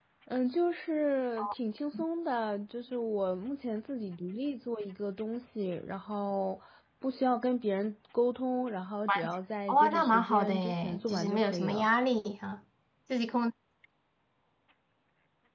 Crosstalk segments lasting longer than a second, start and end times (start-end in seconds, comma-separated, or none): 9.7-11.9